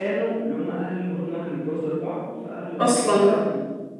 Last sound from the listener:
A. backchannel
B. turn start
A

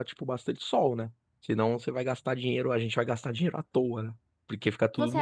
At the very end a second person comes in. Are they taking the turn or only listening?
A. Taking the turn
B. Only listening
A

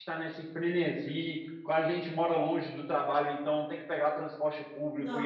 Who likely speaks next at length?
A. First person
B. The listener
A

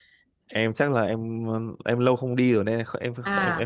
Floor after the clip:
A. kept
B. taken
B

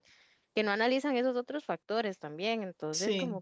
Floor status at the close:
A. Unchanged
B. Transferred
A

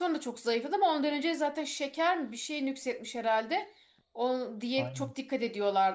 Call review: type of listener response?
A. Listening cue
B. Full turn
A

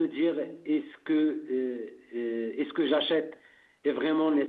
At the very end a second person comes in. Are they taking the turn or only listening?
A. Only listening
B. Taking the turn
A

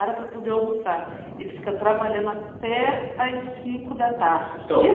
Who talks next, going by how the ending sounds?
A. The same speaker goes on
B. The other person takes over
B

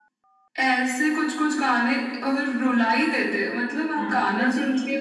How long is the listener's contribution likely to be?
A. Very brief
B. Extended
B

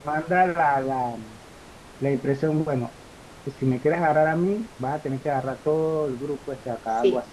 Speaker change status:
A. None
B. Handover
B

